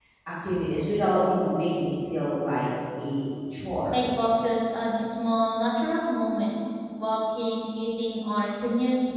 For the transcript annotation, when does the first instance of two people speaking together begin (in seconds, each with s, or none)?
none